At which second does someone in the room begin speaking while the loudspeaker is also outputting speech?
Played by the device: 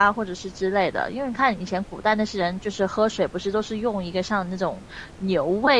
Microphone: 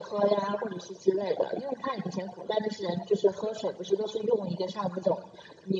none

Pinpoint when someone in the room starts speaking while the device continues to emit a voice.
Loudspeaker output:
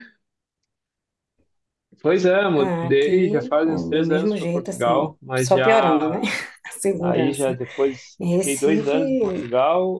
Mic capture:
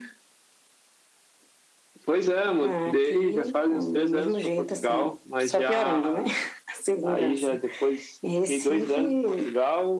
none

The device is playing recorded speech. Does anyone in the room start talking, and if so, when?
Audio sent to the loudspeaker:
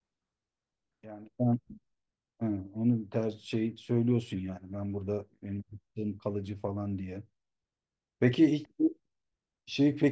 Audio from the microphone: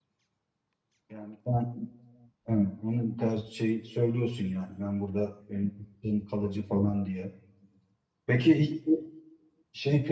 none

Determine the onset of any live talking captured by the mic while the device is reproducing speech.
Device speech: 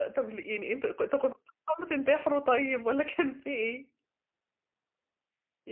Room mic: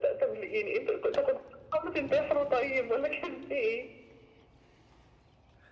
none

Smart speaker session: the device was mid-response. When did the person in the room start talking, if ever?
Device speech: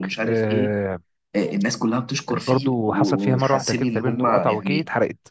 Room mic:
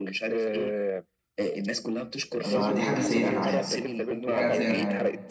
2.4 s

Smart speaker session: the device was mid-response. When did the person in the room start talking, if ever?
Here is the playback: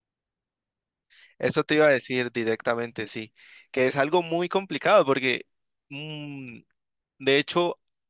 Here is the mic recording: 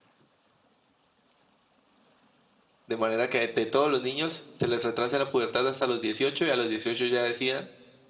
2.9 s

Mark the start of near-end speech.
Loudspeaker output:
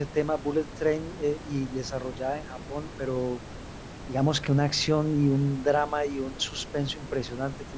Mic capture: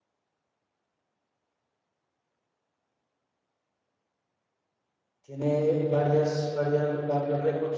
5.2 s

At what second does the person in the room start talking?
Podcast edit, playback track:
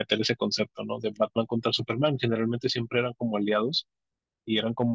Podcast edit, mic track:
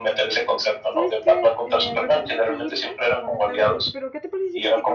0.9 s

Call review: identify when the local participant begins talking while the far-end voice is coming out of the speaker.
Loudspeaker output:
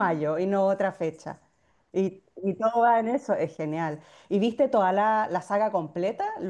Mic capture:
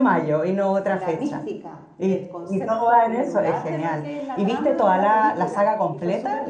0.9 s

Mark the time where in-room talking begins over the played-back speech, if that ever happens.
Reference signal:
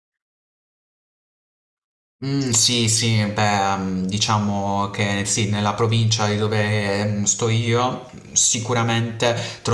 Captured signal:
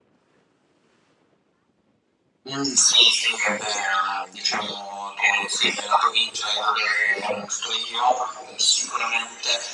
none

